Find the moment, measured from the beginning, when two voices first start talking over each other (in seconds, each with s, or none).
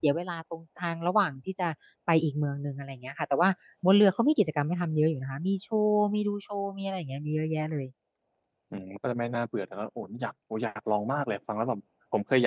none